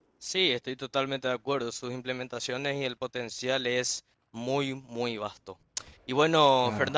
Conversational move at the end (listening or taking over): listening